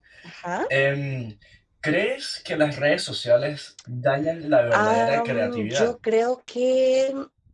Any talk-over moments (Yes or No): Yes